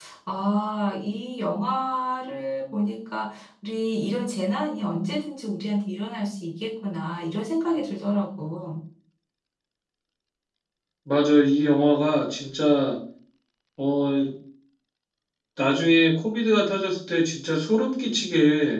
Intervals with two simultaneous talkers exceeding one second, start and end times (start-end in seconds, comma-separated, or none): none